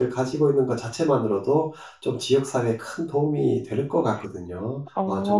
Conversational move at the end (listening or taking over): taking over